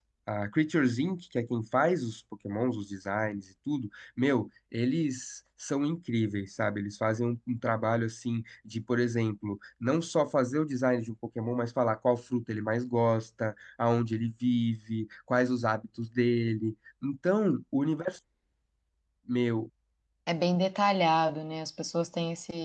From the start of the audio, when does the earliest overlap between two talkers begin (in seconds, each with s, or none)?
none